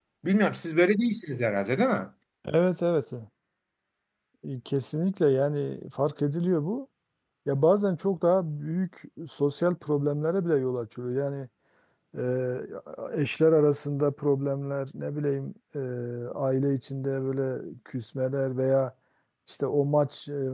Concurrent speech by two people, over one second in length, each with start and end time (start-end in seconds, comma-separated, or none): none